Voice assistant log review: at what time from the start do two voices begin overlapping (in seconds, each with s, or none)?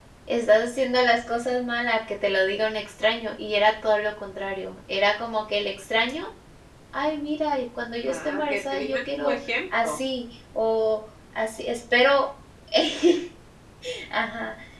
8.0 s